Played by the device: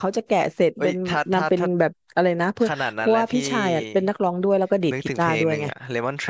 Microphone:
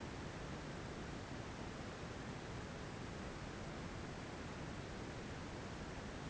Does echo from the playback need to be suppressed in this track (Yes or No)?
No